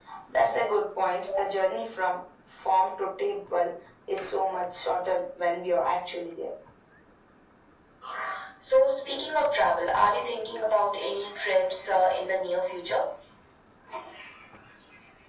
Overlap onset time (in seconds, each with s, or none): none